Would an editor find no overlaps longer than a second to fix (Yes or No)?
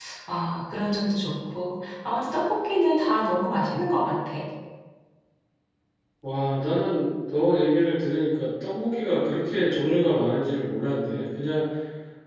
Yes